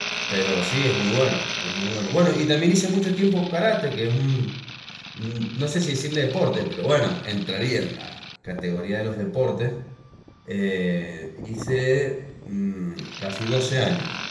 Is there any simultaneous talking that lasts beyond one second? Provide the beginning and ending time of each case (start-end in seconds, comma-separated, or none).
none